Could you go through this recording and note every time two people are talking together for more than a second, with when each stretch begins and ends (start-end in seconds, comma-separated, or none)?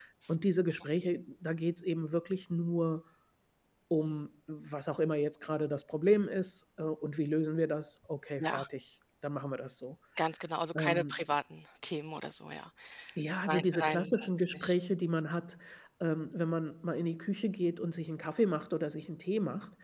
13.5-14.7